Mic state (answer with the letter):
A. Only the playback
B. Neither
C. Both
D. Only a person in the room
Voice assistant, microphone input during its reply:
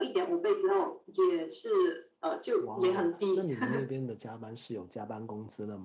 C